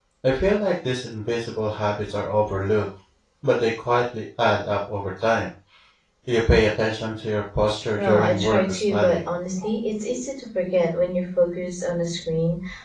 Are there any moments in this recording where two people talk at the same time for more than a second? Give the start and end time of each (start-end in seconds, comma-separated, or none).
8.0-9.2